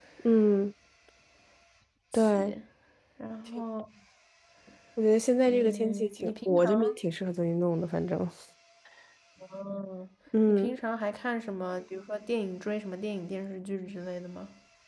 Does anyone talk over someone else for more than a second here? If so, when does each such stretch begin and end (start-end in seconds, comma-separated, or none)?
5.5-6.7